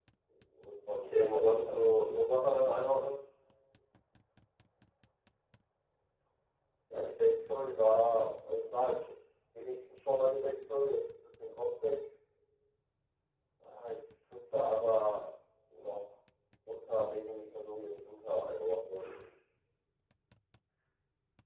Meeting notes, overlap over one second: present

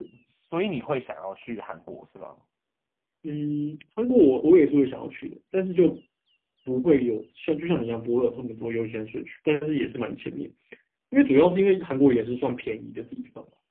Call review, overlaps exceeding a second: none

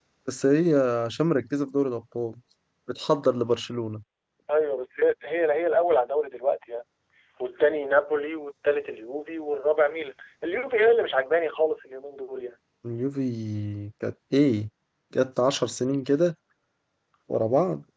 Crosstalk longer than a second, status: none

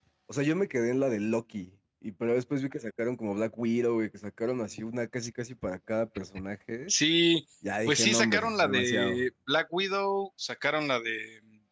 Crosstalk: present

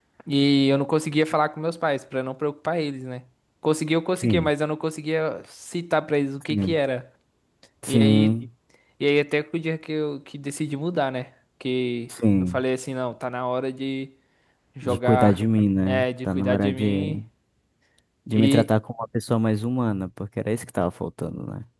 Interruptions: present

